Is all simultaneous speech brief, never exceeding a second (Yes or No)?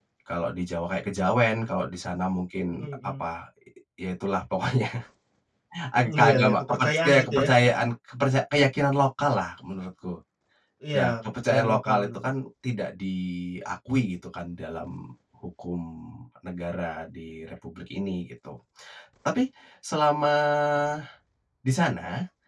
No